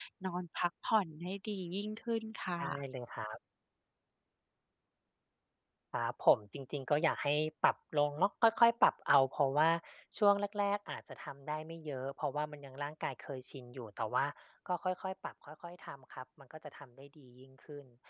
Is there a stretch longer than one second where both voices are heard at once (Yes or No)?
No